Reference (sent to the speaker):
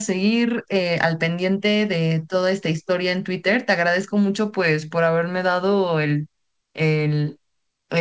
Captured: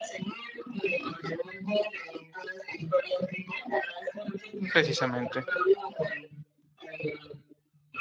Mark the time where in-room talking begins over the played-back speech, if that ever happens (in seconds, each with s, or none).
4.7 s